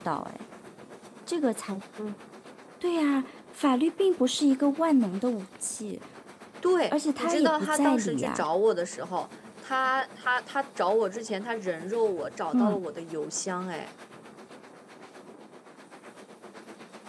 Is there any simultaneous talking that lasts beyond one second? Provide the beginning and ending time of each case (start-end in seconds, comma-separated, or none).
6.9-8.4